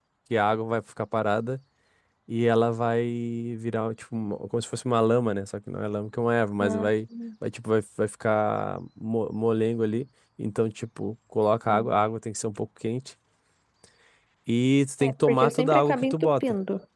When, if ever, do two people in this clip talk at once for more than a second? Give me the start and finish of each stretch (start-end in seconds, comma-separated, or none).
15.0-16.4